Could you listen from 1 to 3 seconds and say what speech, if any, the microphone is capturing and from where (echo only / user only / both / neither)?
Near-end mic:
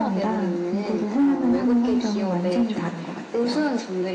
echo only